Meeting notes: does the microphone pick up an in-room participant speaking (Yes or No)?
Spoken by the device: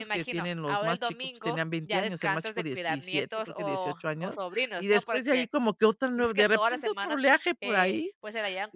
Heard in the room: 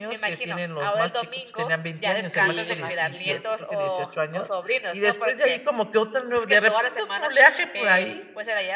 Yes